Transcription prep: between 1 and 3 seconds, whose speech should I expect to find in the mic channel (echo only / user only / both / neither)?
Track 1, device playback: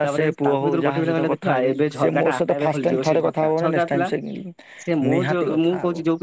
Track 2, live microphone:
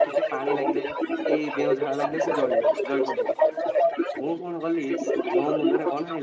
both